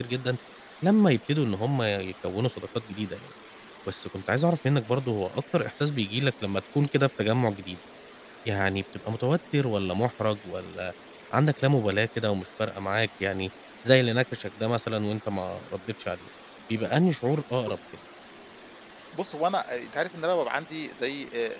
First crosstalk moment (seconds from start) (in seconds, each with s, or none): none